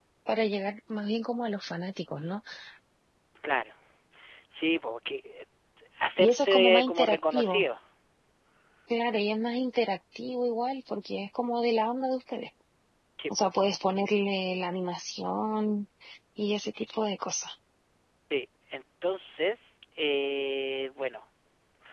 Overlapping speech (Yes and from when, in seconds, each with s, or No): Yes, from 6.2 s